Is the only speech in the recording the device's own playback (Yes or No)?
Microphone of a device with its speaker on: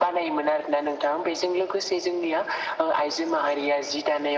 Yes